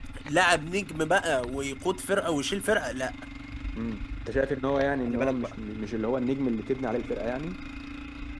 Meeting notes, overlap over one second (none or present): none